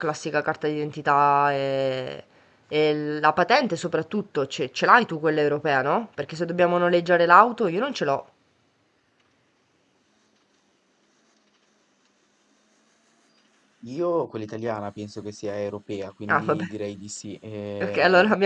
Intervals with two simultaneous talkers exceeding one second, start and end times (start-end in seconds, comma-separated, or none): none